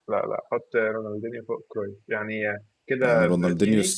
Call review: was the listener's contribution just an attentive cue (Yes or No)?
No